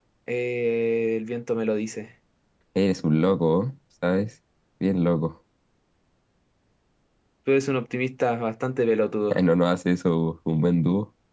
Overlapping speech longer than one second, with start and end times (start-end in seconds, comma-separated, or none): none